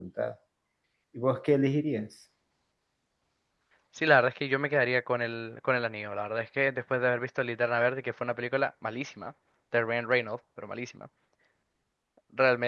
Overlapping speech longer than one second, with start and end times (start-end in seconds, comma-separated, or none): none